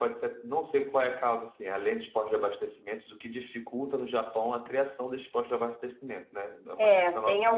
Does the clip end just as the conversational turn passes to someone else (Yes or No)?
Yes